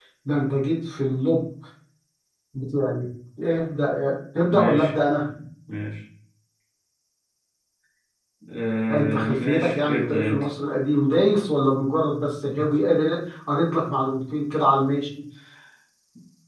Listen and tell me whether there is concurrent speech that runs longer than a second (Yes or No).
Yes